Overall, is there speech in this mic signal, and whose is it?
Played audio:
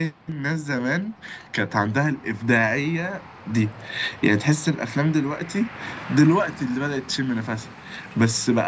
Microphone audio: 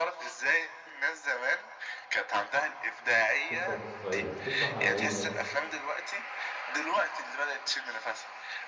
both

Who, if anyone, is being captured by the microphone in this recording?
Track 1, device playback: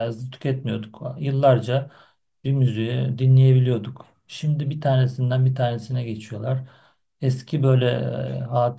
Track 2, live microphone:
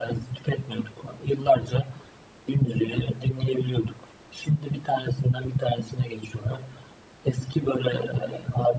echo only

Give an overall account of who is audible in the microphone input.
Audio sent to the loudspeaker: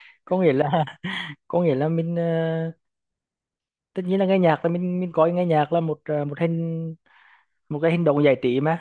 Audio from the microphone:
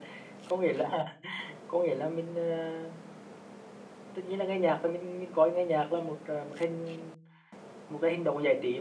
echo only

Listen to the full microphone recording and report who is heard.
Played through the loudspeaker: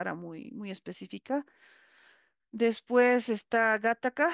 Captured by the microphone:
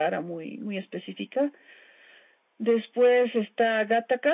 echo only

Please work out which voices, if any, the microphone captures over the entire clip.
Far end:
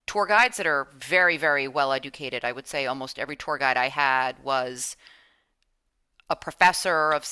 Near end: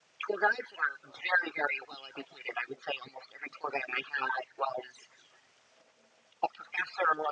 echo only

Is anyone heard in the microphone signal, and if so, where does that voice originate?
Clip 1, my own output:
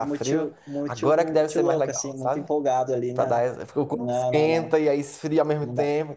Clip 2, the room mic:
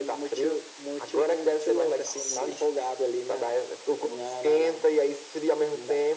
both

